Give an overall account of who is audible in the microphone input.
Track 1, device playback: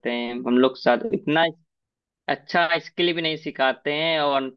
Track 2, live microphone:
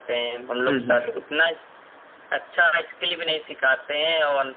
both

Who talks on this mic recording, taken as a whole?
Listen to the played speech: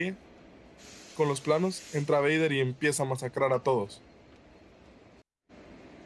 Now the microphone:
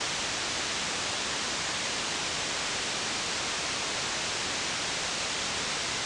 neither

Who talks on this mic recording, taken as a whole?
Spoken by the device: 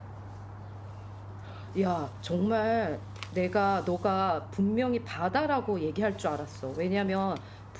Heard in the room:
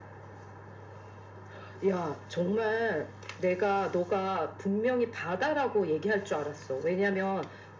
echo only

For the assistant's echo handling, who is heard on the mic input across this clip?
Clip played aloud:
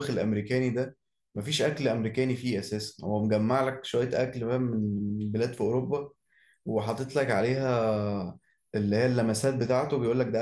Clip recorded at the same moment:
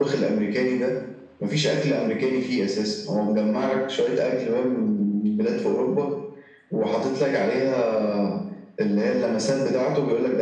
echo only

